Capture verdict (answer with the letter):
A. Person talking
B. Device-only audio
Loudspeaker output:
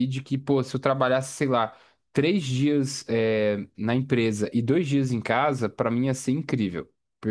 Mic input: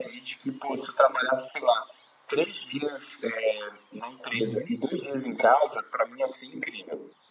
A